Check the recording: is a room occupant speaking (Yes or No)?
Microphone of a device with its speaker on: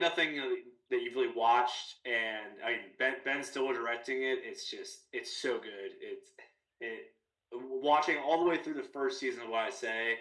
No